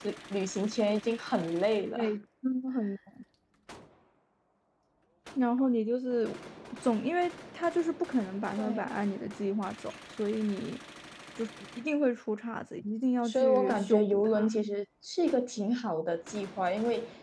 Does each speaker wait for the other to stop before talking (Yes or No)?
No